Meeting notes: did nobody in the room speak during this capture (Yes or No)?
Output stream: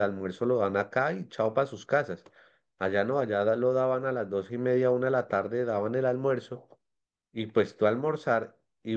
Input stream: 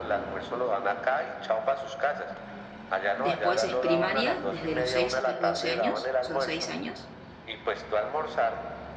No